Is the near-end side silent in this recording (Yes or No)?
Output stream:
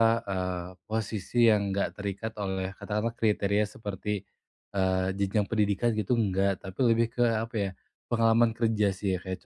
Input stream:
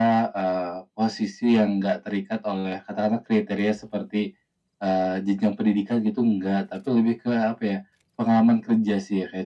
Yes